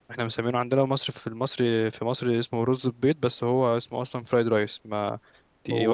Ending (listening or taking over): taking over